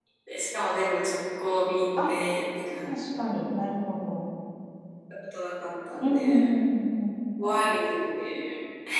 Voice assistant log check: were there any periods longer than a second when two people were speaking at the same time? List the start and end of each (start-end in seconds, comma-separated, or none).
none